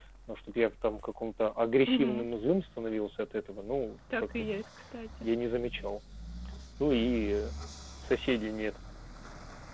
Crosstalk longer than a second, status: none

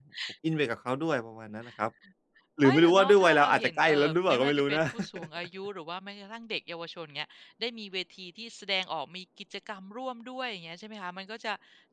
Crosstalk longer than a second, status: present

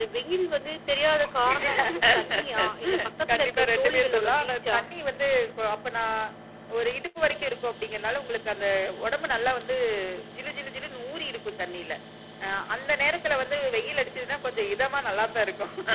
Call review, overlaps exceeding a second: present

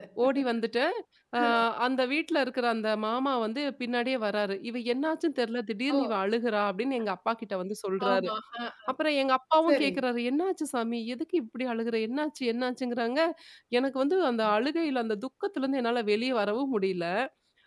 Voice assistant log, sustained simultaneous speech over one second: none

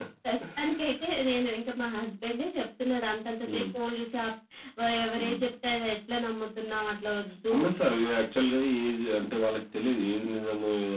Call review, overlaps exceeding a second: none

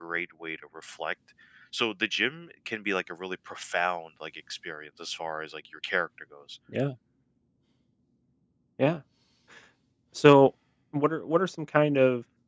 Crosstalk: none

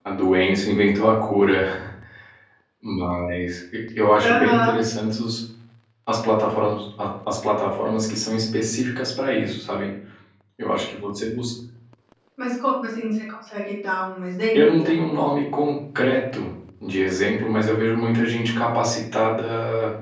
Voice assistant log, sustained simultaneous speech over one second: none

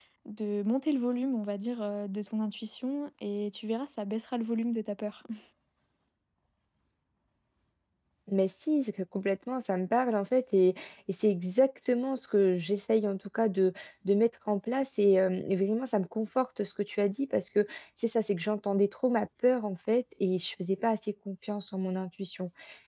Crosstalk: none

